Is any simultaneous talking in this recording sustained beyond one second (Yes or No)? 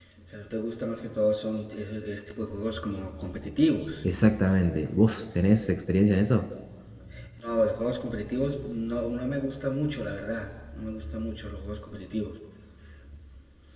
No